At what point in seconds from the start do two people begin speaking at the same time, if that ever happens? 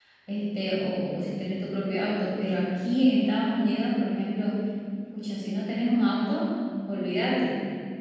none

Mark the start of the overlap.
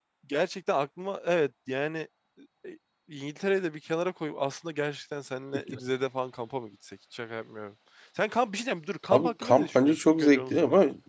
9.1 s

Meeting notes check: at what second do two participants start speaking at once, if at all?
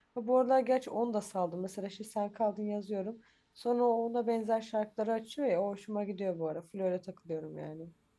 none

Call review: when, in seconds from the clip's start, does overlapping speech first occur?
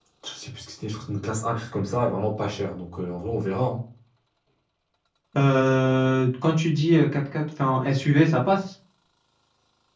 none

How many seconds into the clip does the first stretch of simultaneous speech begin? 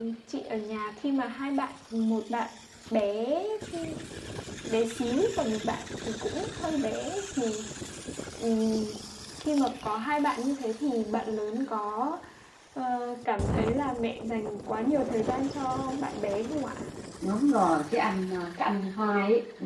none

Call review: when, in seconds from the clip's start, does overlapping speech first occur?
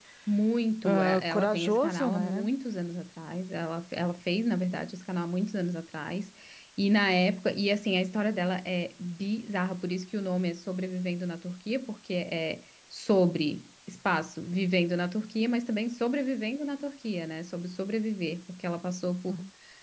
0.8 s

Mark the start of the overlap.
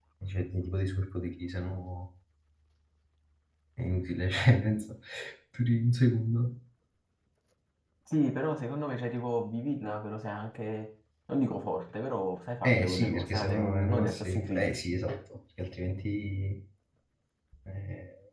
12.6 s

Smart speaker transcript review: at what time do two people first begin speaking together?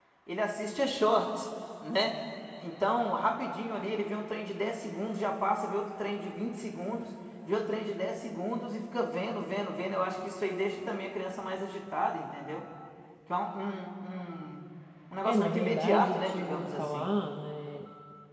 15.2 s

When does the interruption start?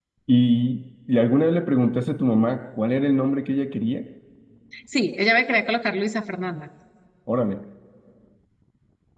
none

